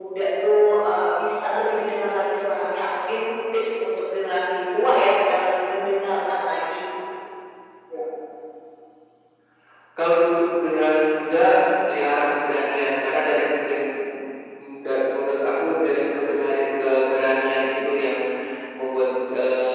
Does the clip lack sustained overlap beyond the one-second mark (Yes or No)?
Yes